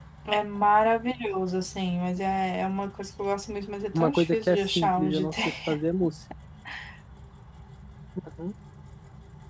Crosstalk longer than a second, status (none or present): present